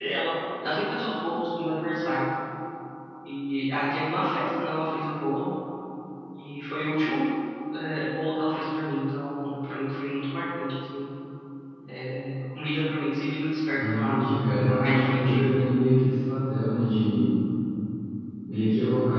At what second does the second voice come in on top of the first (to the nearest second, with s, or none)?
14 s